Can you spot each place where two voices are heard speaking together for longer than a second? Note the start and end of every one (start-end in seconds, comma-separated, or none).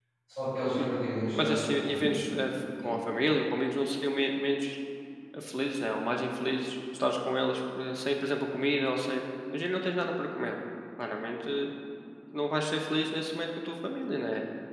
0.8-2.3